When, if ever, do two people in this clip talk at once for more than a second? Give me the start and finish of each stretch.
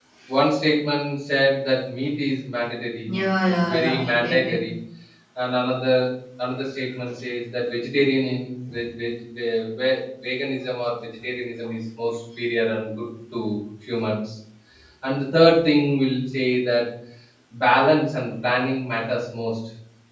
3.0-4.6

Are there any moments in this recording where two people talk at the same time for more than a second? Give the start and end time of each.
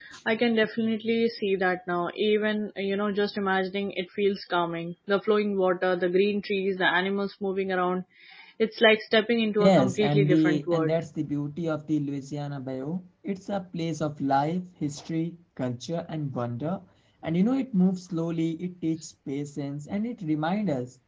9.6-11.0

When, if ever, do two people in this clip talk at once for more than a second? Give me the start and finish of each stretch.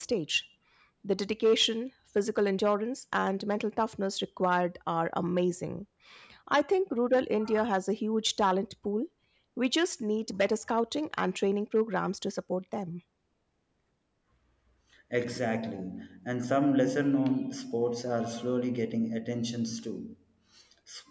none

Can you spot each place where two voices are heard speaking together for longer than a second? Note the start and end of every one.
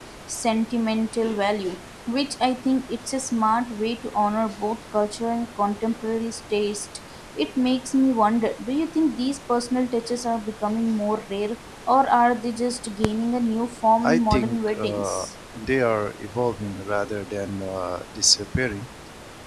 14.0-15.3

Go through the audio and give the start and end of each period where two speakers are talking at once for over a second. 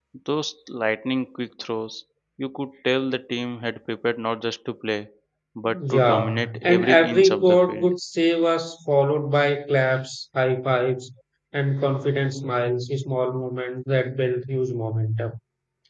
5.9-7.9

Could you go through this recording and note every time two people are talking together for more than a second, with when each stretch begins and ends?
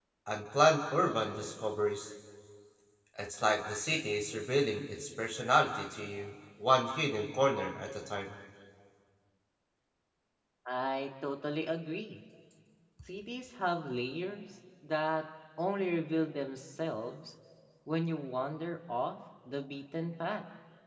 none

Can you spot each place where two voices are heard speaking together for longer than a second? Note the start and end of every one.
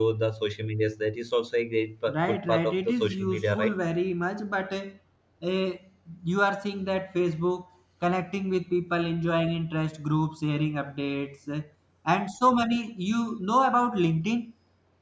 2.1-3.7

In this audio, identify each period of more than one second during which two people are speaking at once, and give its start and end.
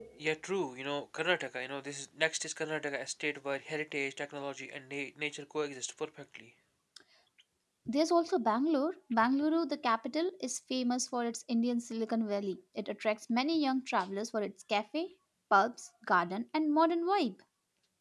none

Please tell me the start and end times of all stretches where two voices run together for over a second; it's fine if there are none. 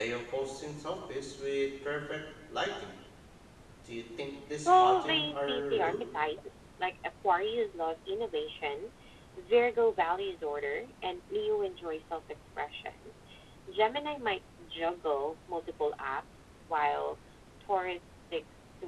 4.6-6.0

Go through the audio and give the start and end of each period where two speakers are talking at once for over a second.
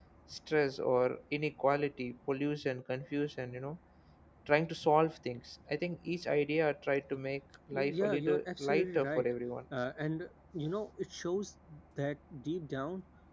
7.7-9.2

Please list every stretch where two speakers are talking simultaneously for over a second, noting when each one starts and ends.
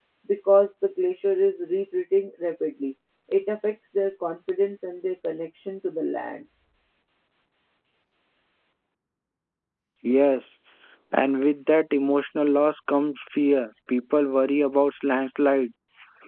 none

